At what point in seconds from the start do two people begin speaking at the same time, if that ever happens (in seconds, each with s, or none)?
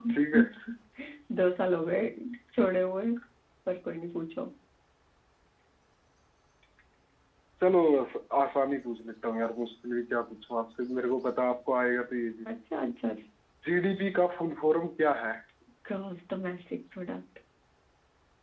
none